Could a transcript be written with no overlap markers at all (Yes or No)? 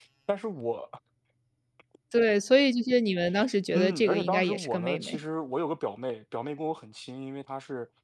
No